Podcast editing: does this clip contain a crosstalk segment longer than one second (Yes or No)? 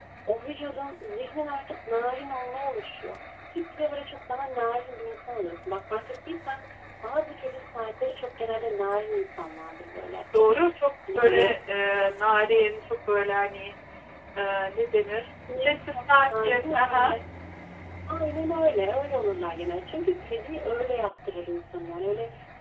Yes